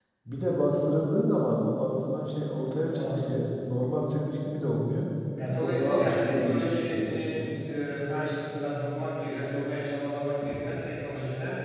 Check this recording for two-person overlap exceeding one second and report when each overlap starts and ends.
5.6-7.5

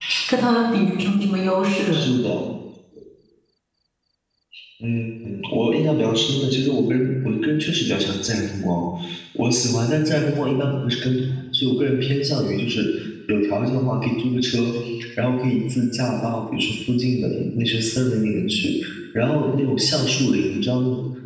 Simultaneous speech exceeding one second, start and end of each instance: none

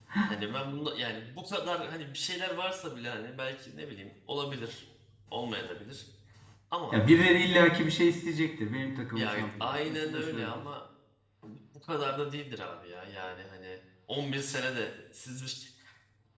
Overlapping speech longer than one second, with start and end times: 9.2-10.7

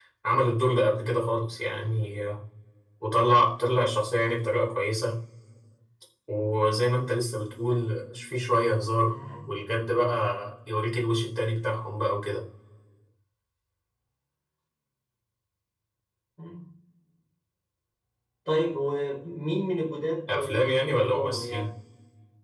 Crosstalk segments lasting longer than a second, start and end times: 20.3-21.7

